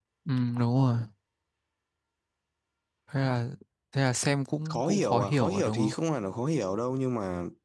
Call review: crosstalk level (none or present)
present